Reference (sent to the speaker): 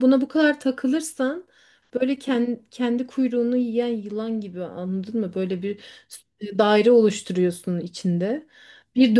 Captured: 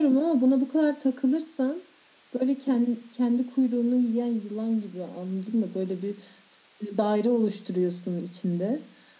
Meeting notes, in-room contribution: none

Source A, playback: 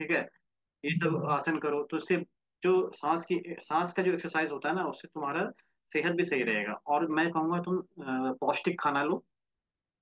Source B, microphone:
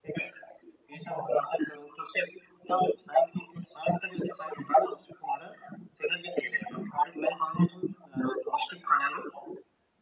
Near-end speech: none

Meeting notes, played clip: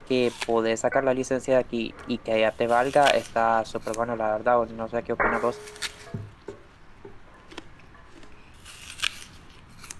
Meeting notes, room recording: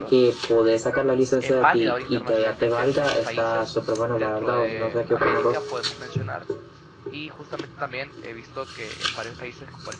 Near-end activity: present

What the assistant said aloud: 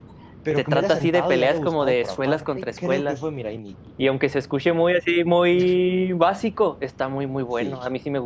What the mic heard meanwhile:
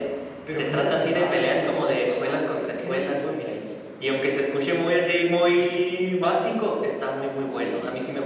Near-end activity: none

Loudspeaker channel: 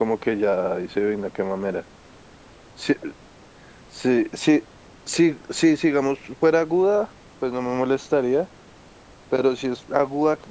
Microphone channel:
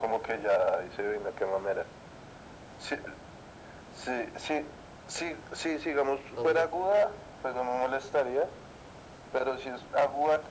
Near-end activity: present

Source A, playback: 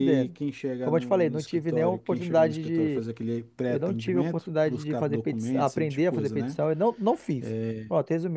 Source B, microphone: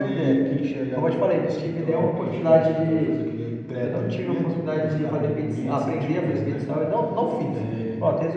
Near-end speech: none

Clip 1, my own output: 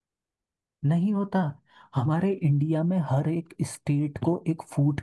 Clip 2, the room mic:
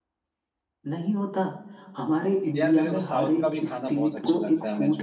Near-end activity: present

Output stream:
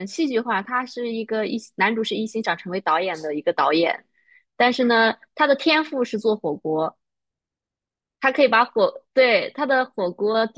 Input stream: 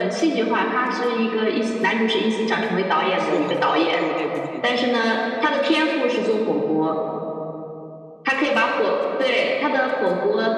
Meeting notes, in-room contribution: present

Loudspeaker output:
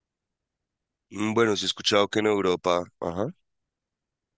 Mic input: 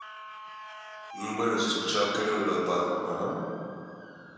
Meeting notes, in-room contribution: none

